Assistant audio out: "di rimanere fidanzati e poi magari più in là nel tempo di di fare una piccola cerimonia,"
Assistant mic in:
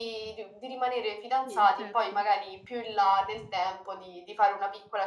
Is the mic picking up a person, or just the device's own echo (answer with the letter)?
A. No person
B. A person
B